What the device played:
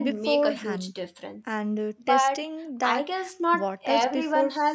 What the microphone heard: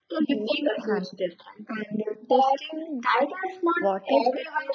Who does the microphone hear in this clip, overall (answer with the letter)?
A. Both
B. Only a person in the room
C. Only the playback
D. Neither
C